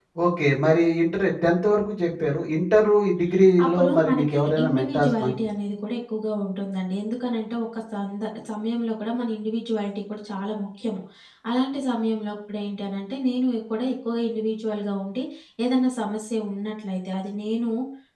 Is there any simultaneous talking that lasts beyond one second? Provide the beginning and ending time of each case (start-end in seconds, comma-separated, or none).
3.6-5.3